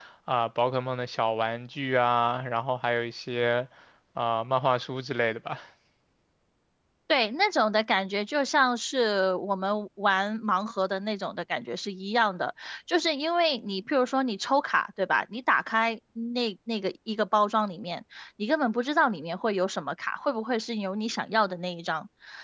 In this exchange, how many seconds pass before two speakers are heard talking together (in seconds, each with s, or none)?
none